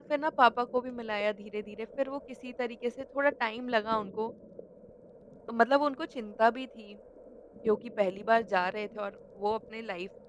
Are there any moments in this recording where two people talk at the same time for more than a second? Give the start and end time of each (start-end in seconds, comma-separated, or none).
none